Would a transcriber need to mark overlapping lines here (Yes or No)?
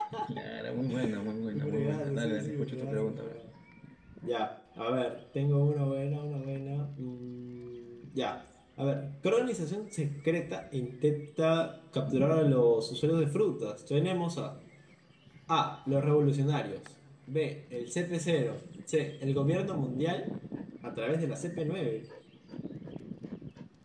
Yes